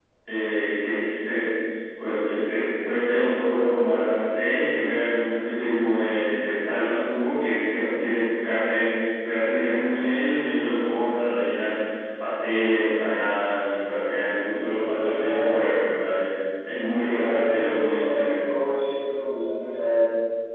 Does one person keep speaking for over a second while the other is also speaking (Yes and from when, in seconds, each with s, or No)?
Yes, from 14.4 s